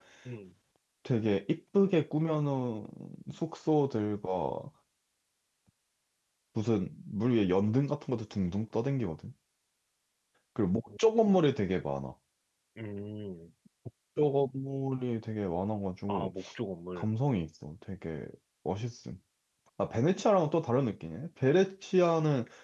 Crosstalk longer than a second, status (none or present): none